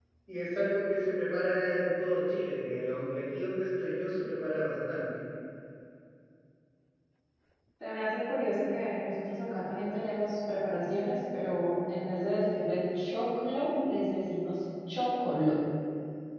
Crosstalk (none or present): none